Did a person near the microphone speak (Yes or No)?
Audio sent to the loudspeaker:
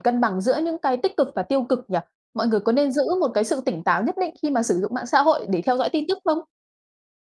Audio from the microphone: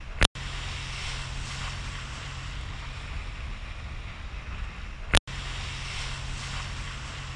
No